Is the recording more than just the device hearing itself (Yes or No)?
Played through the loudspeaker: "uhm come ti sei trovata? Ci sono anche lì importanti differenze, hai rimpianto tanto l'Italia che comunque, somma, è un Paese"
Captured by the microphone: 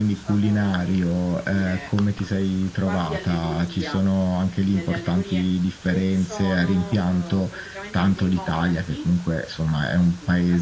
Yes